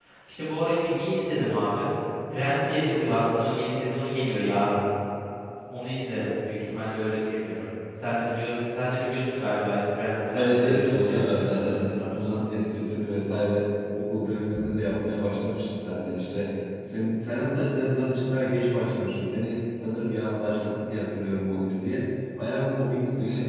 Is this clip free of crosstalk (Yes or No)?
No